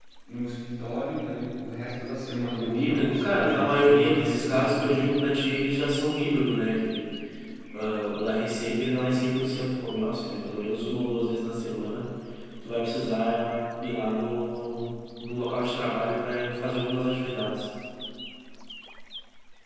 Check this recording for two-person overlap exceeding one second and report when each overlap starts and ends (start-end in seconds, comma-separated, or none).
2.6-5.0